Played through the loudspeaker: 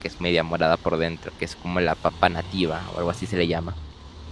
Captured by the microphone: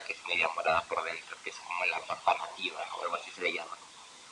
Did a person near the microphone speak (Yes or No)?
No